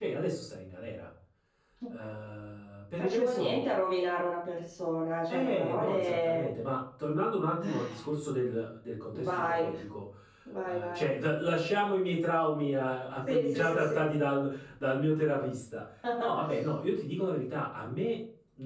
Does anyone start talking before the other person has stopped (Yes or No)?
Yes